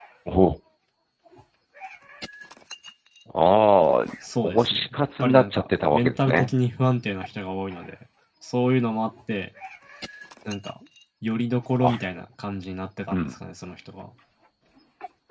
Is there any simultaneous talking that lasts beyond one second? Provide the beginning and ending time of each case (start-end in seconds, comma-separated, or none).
4.4-6.5